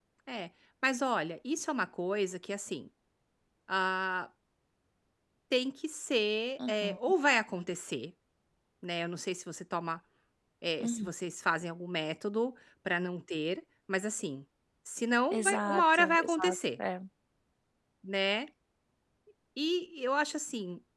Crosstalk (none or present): present